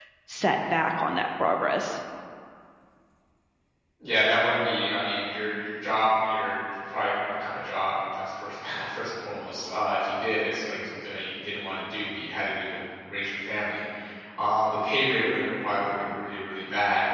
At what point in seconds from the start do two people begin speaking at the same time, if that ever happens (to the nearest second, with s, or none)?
none